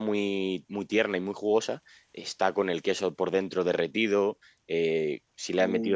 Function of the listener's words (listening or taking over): listening